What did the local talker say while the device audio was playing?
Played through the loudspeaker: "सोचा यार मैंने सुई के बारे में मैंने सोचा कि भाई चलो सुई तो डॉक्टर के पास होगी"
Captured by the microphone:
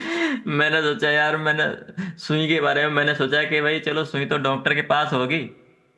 none

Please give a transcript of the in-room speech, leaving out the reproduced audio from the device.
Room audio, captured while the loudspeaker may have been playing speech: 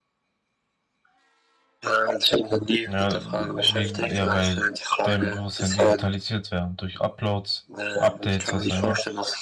Ja, wegen, ja, weil dein Bewusstsein digitalisiert wäre. Durch Uploads, Updates, was auch immer,

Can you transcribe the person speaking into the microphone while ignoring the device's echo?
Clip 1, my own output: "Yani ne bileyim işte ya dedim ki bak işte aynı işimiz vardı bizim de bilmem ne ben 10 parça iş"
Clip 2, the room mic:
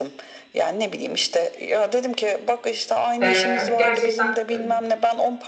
ee, gerçekten e,

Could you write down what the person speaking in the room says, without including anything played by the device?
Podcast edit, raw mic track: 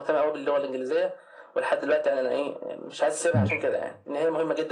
ماشي

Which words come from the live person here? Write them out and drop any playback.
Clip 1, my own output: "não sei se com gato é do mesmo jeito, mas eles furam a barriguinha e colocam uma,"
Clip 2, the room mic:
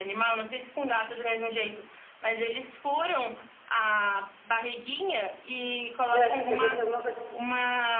Meu, acho que se acontecer alguma coisa.

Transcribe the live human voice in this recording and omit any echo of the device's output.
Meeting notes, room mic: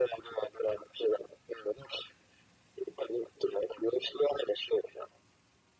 none

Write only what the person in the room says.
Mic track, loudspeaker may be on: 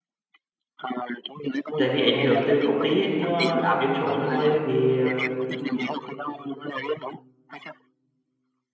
tại vì ảnh hưởng từ công ty ấy, nó áp doanh số nó hơi hơi bị ờ,

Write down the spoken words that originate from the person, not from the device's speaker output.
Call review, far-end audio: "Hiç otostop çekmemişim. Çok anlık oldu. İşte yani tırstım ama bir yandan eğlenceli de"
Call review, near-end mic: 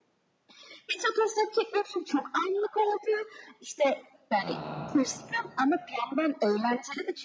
Aa,

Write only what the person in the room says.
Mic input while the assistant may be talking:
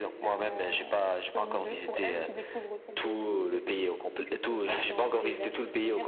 none

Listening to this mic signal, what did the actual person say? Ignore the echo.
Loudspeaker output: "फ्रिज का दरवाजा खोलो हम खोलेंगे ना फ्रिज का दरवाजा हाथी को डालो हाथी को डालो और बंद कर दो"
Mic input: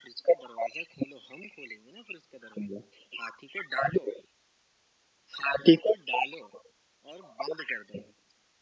none

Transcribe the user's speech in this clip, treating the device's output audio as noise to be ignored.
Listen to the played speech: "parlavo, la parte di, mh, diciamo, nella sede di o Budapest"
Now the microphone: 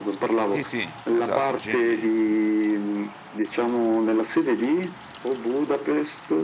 Sì, sì, esatto, GMB.

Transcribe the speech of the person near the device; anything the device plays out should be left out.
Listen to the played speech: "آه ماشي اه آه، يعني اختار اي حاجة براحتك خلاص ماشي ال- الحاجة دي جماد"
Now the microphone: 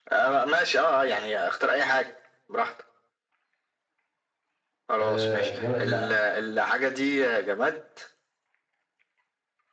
آه جماد لا

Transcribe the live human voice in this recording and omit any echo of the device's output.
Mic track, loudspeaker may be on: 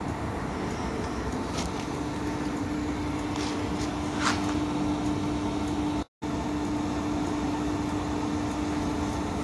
none

